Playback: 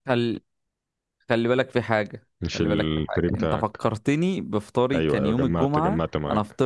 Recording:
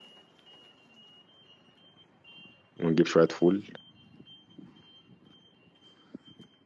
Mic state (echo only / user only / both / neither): user only